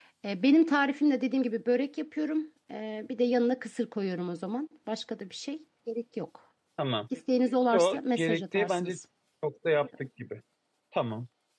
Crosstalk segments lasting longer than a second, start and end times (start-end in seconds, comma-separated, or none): 7.7-9.0